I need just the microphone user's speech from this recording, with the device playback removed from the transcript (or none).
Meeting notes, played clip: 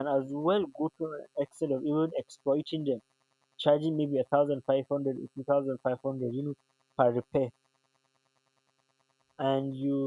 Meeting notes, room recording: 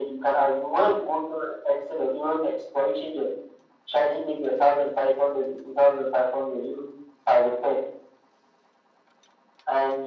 none